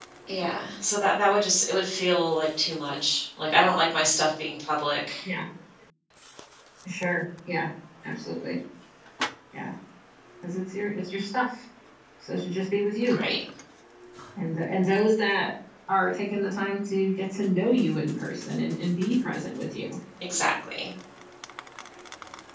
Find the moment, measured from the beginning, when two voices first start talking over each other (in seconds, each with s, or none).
none